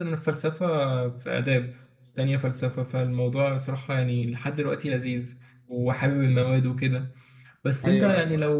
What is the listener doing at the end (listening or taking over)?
listening